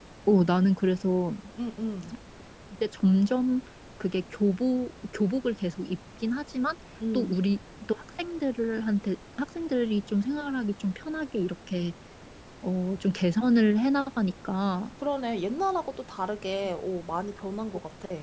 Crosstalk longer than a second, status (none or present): none